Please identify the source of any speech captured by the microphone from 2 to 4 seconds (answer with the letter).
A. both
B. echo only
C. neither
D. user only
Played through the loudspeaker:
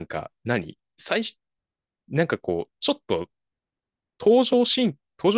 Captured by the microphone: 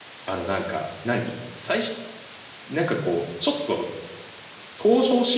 B